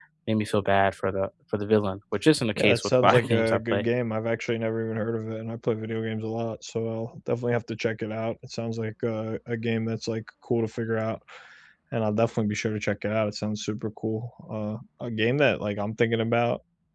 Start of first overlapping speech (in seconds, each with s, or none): 2.6 s